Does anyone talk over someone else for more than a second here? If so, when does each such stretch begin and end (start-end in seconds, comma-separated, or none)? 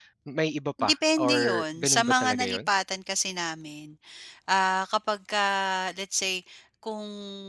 0.8-2.7